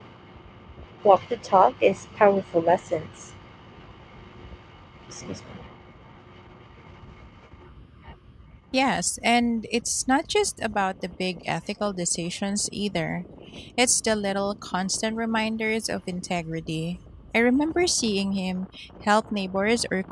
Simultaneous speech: No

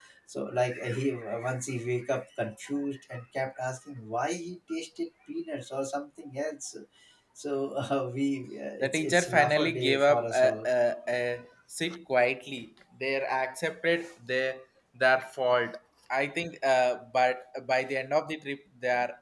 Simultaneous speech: Yes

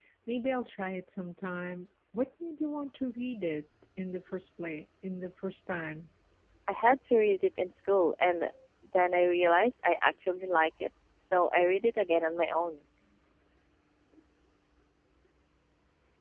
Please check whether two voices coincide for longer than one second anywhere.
No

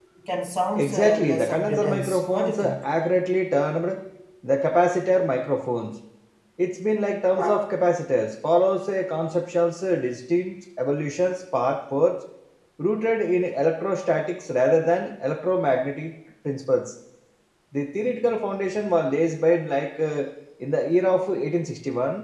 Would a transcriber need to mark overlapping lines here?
Yes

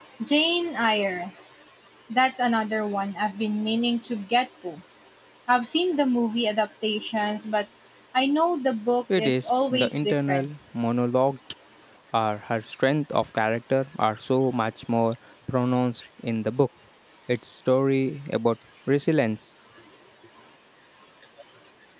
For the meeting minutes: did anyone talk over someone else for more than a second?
Yes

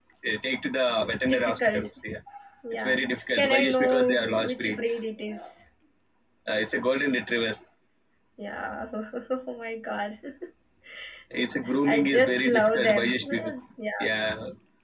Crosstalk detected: Yes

